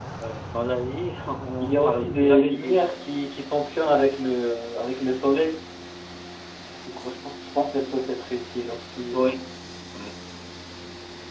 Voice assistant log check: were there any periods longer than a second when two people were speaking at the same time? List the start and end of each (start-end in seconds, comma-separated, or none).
1.6-3.0